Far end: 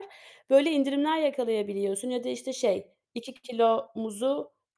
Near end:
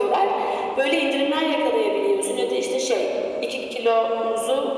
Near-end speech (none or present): none